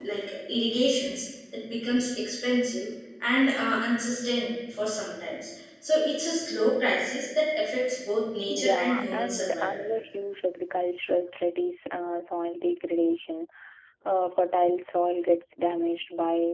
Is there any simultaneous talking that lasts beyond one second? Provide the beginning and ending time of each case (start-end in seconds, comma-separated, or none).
8.5-9.8